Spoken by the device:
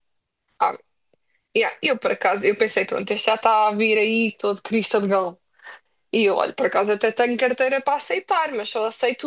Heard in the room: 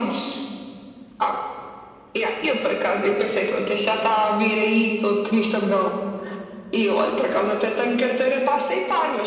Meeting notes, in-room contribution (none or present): none